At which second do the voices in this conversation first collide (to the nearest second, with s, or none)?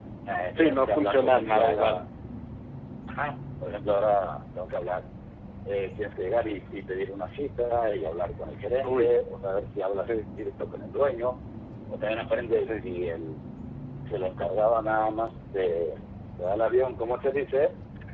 1 s